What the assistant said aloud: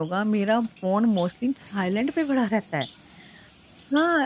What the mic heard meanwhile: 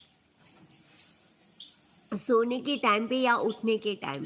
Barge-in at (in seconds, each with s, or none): 2.2 s